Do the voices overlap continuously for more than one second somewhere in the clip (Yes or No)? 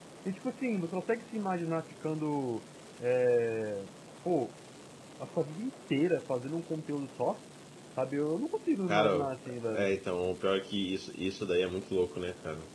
No